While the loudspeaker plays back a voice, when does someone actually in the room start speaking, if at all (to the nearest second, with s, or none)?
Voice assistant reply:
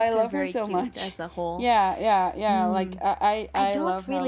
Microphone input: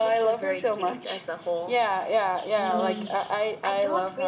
3 s